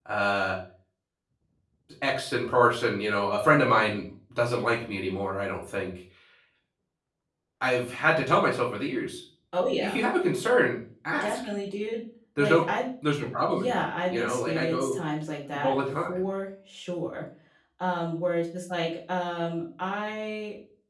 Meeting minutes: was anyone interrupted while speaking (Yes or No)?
Yes